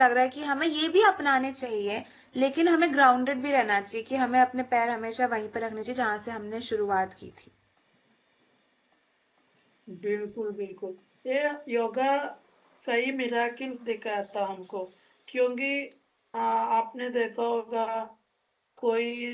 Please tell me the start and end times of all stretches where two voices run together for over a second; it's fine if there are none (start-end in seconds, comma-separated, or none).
none